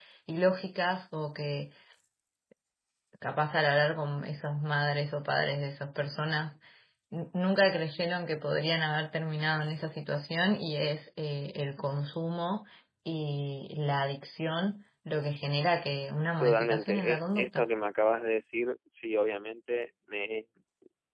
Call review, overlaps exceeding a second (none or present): present